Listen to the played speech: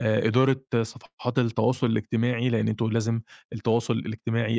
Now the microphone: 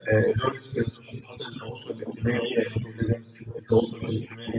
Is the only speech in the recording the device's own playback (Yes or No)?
Yes